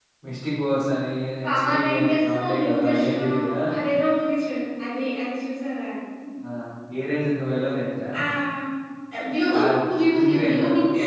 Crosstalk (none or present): present